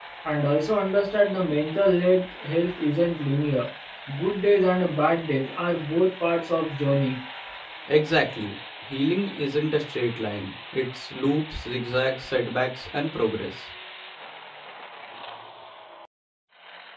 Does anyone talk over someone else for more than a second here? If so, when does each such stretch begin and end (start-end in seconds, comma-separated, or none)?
none